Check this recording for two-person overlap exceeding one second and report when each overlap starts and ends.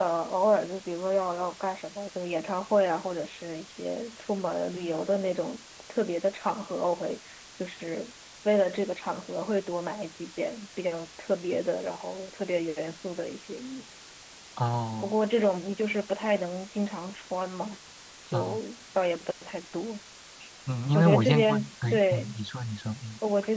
20.9-22.3

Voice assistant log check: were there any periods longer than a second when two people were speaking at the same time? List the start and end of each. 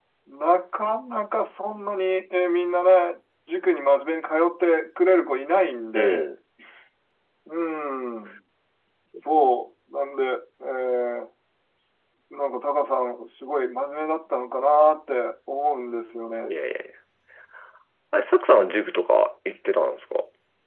none

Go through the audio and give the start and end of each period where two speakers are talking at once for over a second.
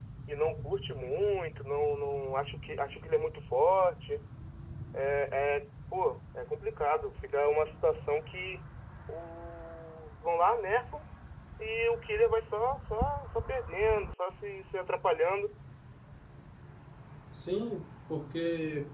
none

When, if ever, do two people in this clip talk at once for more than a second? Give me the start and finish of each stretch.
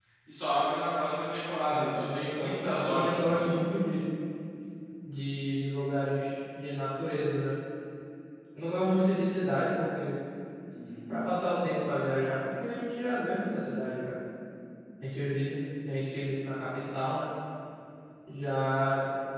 1.7-3.4

